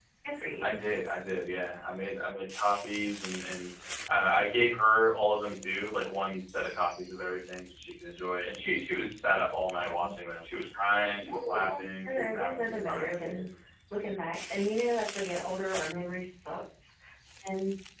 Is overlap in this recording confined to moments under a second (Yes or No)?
No